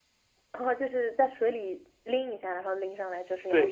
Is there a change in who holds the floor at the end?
Yes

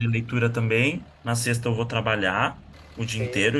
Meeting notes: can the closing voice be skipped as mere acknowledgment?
Yes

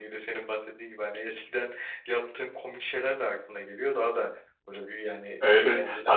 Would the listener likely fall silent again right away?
No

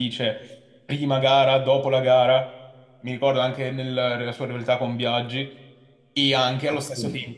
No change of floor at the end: Yes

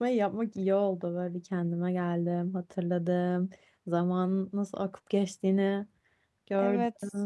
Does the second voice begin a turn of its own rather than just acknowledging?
Yes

